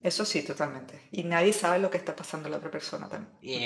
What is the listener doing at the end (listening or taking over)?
taking over